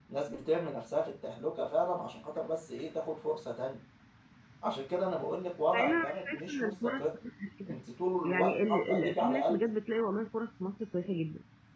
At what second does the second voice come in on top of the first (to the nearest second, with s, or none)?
6 s